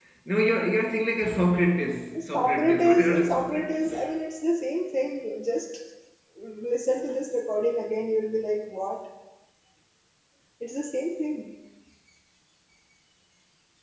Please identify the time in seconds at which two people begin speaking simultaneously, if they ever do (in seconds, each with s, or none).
2.2 s